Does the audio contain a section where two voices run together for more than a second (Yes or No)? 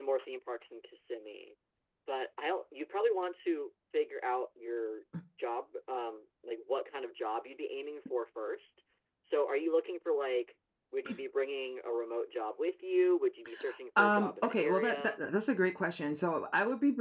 Yes